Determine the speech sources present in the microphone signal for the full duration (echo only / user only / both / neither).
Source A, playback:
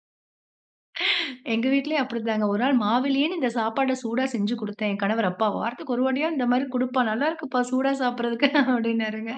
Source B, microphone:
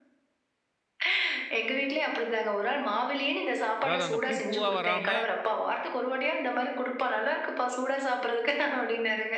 both